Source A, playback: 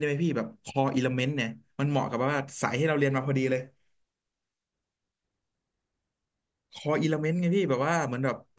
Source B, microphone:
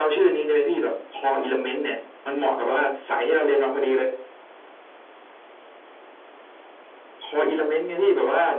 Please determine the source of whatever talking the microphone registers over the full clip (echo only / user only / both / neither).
echo only